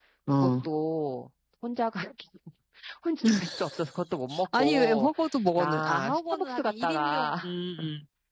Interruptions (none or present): present